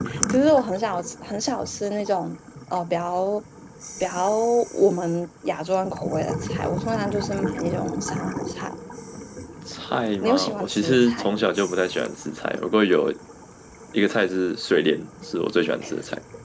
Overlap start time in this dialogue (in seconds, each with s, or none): 10.2 s